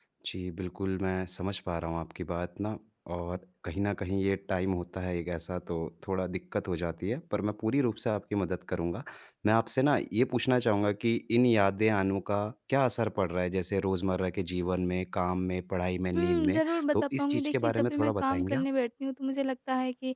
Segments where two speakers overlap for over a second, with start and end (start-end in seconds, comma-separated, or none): 16.1-18.6